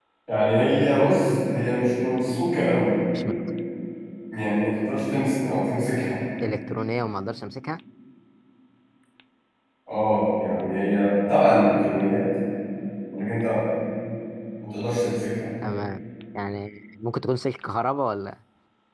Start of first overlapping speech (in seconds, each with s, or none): none